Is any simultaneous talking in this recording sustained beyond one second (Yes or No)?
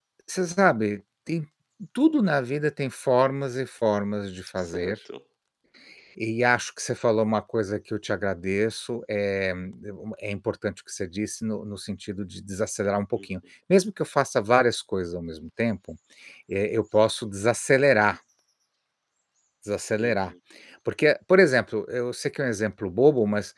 No